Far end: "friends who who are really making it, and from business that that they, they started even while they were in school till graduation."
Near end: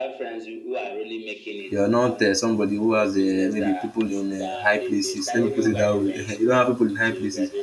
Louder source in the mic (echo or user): user